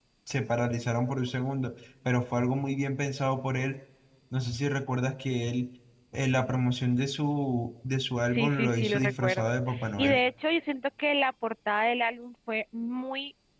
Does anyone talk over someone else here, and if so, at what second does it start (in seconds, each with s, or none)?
8.3 s